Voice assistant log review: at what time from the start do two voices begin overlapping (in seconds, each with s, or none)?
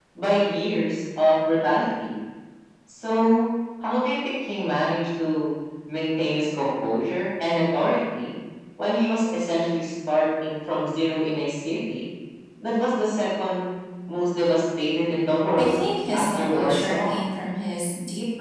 15.6 s